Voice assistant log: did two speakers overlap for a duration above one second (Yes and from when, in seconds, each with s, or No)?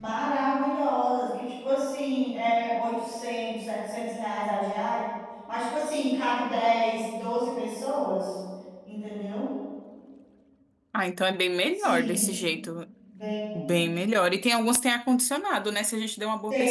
No